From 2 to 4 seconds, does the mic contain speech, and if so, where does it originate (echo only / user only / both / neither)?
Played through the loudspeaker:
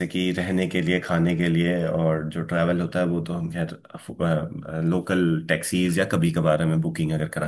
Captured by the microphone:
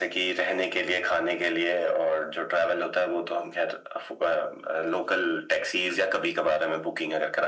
echo only